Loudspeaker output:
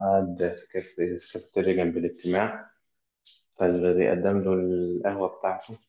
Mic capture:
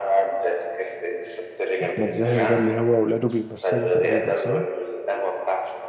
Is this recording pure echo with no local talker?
No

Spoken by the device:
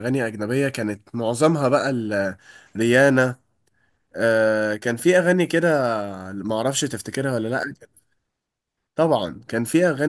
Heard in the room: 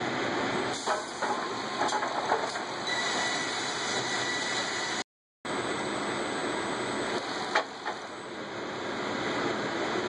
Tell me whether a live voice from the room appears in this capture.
No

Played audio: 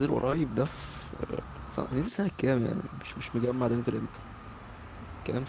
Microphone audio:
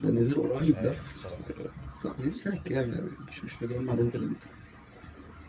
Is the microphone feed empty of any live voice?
No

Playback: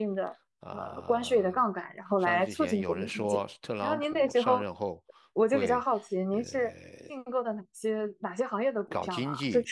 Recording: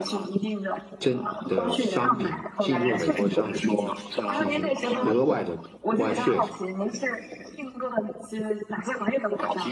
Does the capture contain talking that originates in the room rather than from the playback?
Yes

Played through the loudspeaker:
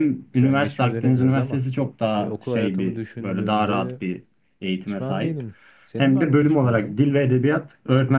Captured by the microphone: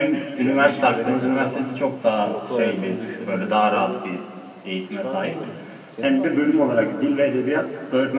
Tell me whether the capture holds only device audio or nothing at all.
Yes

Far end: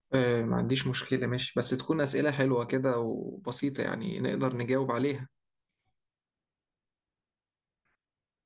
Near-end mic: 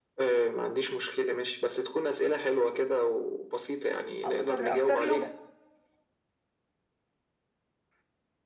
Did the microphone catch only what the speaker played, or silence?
No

